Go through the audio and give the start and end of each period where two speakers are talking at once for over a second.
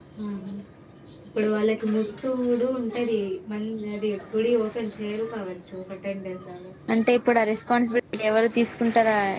none

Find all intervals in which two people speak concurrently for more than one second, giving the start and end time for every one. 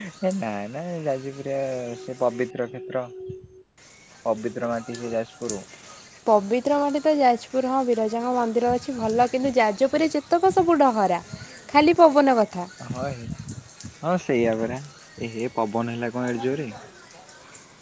none

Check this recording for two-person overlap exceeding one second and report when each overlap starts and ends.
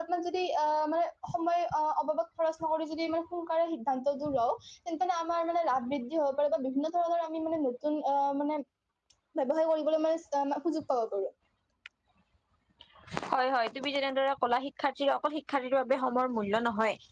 none

